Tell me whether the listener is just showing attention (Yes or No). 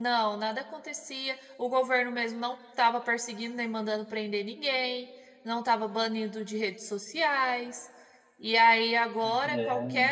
Yes